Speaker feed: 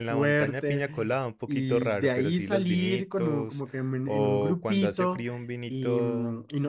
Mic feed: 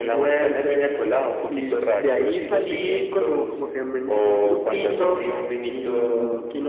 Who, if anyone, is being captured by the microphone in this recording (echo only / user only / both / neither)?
echo only